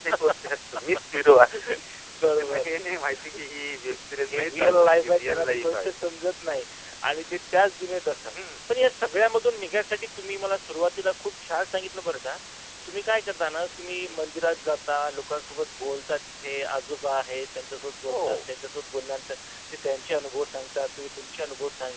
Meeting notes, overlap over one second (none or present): present